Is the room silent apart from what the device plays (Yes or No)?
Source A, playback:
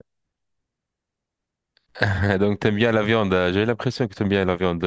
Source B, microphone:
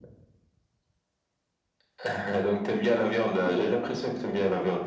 No